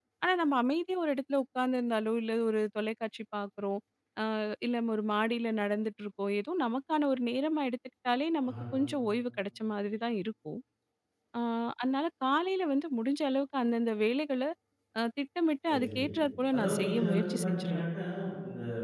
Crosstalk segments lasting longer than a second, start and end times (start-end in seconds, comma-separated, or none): 16.5-17.8